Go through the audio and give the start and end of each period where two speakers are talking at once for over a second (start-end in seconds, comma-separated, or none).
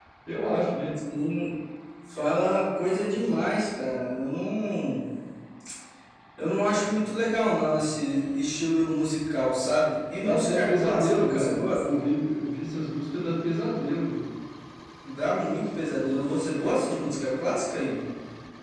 10.2-11.8